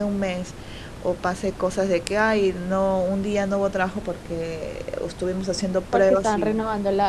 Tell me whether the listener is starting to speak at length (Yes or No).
Yes